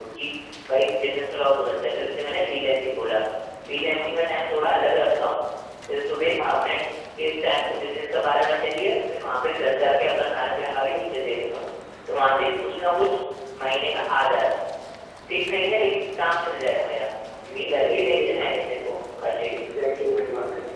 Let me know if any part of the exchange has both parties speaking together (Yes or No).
Yes